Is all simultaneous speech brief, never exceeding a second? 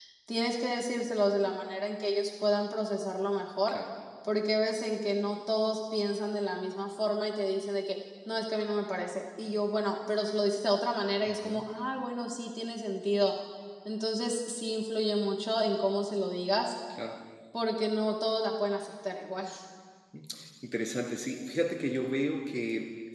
Yes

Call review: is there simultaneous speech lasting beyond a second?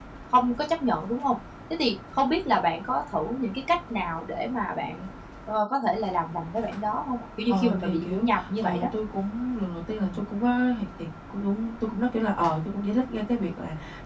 Yes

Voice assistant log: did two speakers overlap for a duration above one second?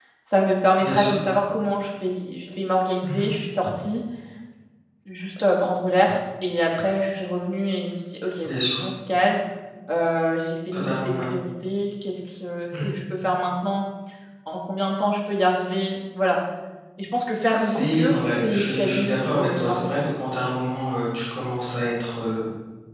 Yes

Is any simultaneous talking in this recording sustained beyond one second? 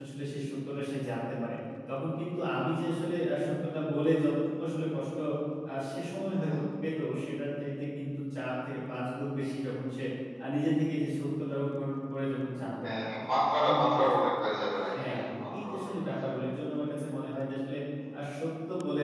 Yes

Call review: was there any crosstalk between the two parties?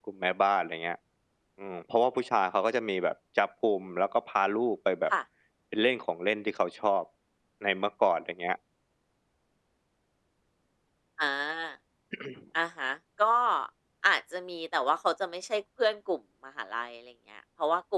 No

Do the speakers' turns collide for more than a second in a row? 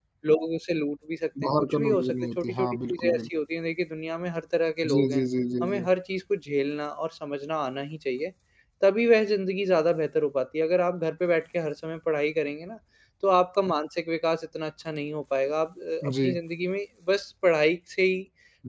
Yes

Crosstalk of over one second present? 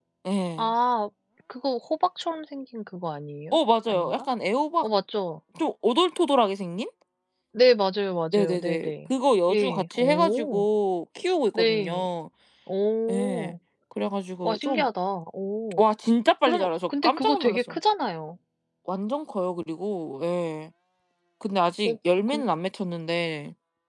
Yes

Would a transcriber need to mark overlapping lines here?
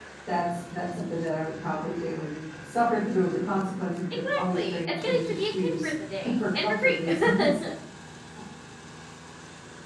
Yes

